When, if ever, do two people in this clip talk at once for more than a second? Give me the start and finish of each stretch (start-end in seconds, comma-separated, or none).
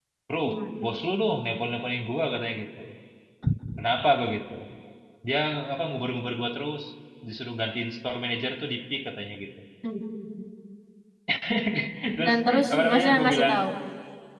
12.2-13.5